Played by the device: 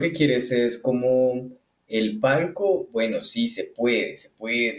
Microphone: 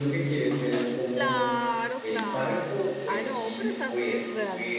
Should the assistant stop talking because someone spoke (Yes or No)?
Yes